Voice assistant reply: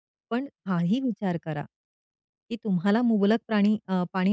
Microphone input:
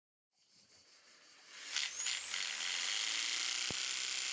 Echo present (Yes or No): No